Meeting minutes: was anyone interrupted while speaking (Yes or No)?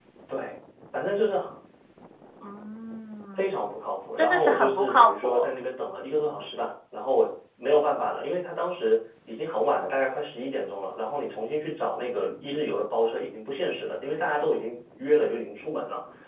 Yes